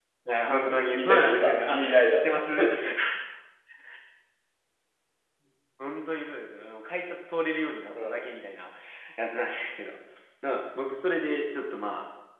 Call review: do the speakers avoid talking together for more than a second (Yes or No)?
No